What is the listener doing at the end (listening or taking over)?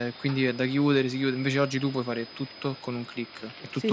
taking over